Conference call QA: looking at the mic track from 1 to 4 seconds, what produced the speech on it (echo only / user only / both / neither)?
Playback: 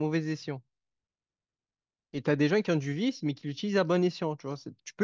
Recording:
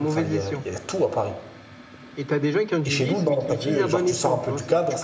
both